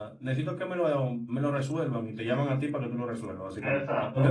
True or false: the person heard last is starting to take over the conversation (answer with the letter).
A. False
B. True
B